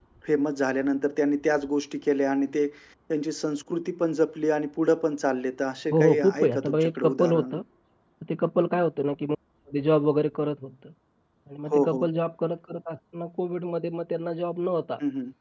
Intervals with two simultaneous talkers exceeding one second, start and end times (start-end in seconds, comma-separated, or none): 5.9-7.6